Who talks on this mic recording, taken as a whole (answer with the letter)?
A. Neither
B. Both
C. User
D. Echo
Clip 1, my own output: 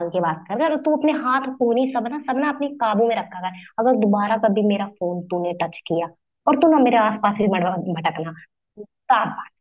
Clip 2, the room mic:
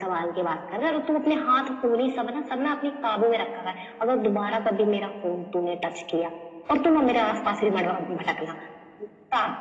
D